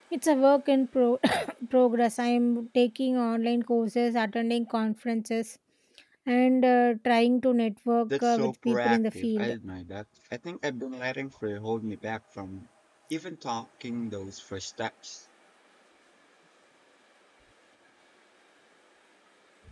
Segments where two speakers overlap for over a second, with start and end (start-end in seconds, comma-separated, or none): 8.2-9.5